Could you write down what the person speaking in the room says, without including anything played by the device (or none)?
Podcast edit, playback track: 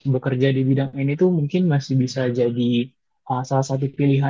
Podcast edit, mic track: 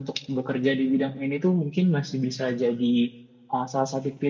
none